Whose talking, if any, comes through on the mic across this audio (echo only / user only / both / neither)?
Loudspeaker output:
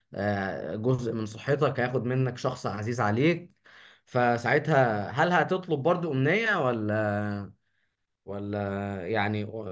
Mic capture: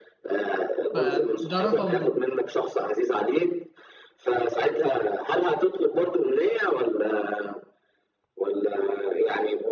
both